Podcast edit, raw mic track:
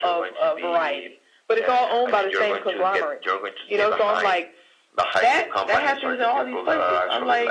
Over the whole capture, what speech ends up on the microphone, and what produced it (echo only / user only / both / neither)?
echo only